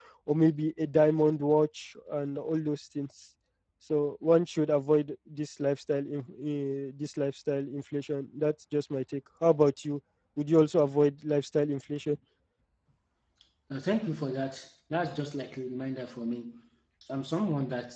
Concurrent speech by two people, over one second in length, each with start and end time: none

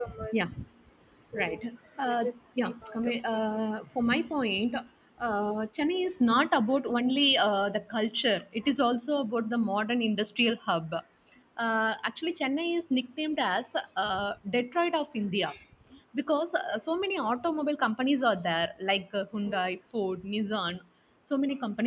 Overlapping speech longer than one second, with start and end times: 2.1-3.5

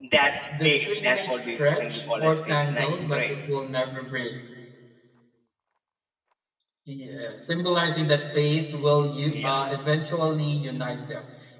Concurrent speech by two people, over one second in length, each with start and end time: 0.6-3.2

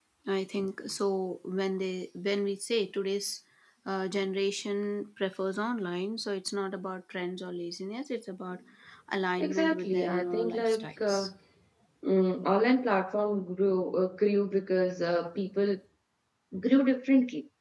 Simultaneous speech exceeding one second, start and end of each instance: 9.4-11.3

